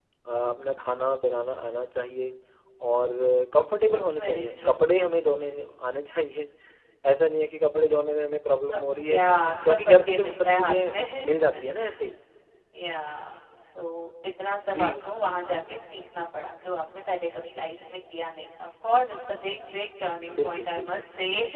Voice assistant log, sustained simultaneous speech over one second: present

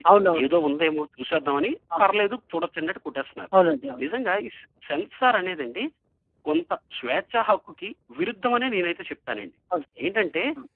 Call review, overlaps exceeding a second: none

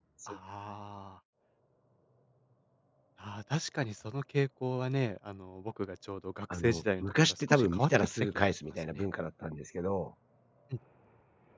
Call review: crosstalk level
present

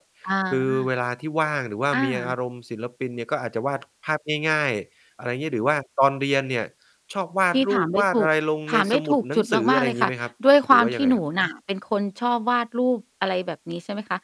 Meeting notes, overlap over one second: present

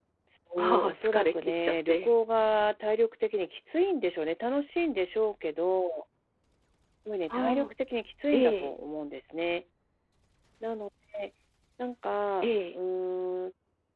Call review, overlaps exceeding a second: present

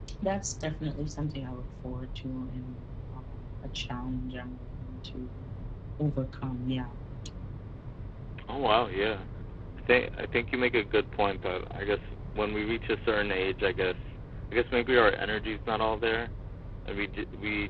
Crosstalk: none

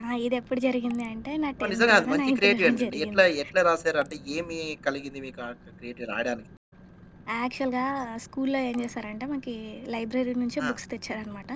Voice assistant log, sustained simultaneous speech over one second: present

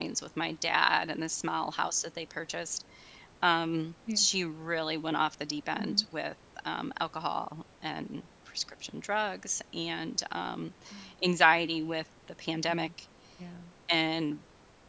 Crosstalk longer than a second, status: none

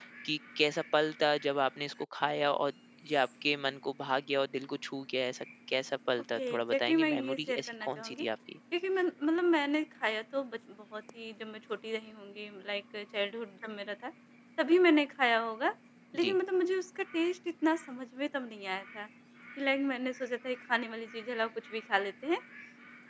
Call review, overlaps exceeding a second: present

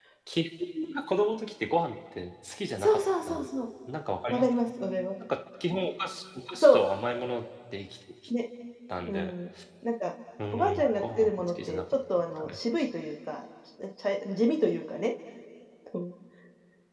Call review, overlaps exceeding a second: present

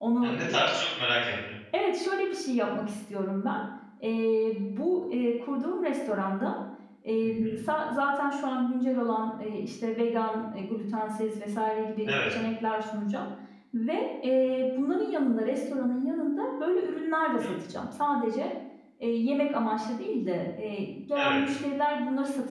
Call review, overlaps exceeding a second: none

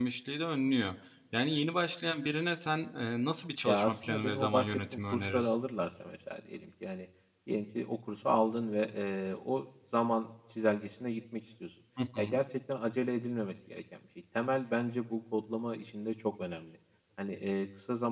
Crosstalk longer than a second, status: present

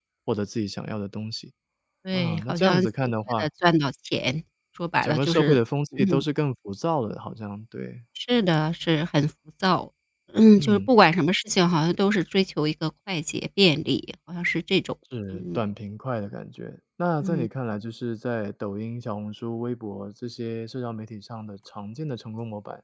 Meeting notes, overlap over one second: present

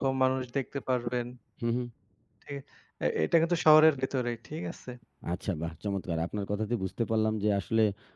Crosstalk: none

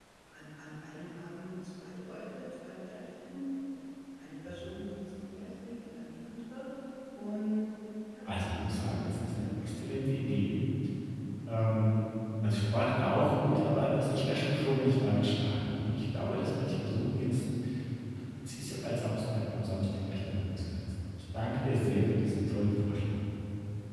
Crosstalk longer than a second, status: present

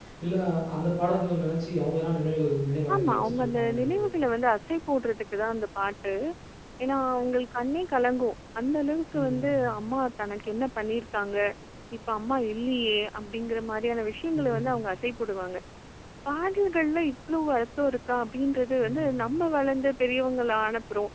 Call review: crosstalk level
present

